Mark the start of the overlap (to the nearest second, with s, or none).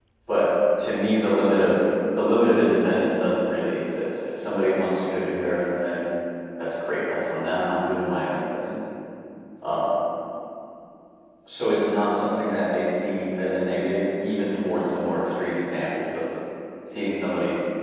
none